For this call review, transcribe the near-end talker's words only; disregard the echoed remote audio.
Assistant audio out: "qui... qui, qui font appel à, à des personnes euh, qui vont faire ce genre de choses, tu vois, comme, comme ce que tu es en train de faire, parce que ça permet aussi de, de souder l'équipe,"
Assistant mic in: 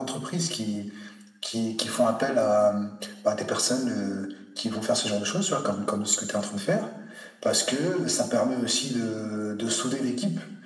none

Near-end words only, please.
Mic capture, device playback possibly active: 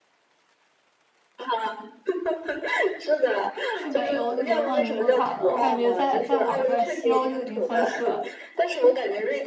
去北欧是流放宁古塔了，我感觉在在我这儿西欧就已经算是了。

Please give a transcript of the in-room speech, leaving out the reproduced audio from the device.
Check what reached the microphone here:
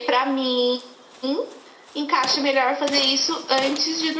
none

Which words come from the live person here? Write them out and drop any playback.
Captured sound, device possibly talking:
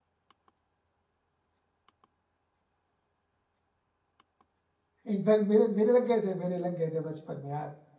इनफैक्ट मेरे मेरे लग गए थे मेरे लग गए थे बचपन में यार

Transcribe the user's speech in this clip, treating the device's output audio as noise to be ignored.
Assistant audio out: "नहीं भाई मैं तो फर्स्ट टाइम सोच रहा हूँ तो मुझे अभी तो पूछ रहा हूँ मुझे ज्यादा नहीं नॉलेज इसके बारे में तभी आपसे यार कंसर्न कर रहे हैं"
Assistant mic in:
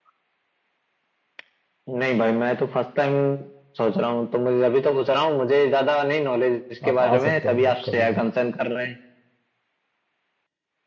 आप आ सकते हैं उधर कभी भी

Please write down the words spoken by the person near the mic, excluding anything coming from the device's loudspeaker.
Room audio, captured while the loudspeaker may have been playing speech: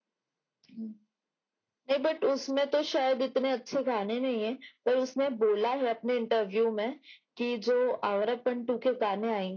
none

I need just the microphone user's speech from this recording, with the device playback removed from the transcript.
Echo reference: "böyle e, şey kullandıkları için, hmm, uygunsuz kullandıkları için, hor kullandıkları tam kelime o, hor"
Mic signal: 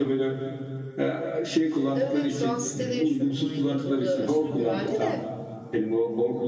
Evet evet şu an sitede yaşıyorum 10 yıldır. Burada aşırı güvenli de

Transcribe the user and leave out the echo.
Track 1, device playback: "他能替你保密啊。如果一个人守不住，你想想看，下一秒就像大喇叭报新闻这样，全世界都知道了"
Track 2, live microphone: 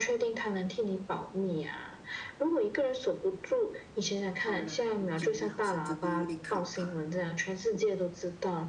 好了，你讲的好像真的有点可怕。

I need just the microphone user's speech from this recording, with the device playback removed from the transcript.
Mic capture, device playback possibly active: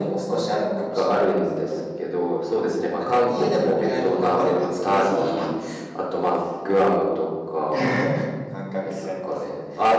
none

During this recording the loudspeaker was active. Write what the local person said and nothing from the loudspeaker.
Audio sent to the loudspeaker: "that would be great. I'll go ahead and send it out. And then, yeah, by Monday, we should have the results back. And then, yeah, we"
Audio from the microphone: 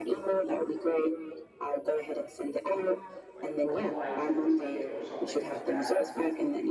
like reply to the ticket or something like that.

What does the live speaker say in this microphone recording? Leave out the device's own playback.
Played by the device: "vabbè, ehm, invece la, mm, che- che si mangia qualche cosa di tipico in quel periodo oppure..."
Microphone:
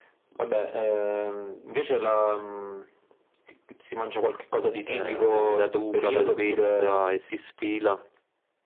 eh, quindi da duca, da duchessa e si sfila.

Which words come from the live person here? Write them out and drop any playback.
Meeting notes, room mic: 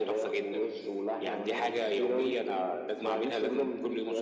none

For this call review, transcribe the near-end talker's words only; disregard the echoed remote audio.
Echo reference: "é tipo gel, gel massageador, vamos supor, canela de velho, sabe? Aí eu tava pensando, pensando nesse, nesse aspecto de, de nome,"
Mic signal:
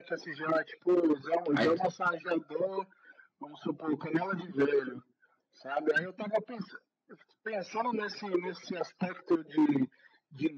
Aí tu

